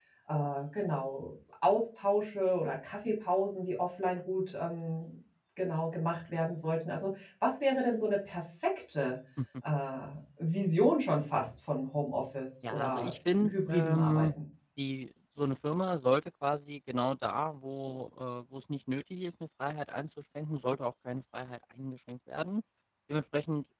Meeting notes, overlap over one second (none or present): present